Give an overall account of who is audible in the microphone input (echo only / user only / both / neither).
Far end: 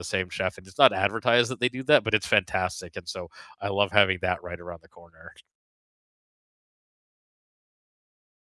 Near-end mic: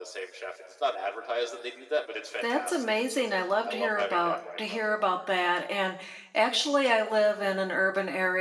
both